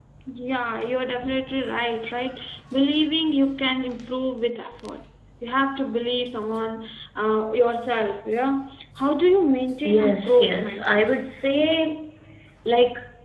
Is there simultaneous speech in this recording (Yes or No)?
Yes